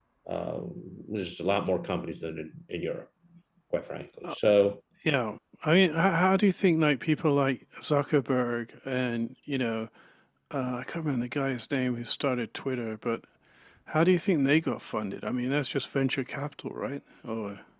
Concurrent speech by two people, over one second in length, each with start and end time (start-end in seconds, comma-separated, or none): none